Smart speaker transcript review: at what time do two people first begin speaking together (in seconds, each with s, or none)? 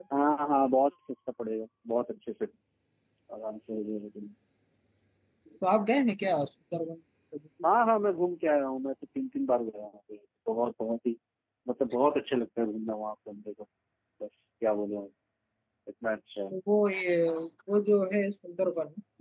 none